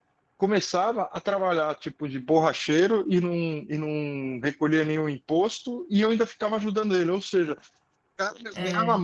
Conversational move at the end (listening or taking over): listening